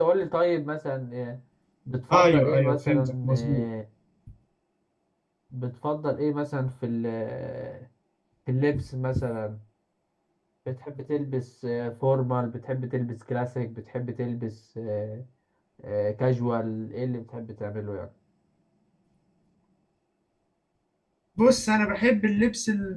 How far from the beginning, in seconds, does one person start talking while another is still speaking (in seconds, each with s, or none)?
2.1 s